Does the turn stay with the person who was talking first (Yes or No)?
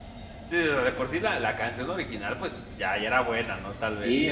No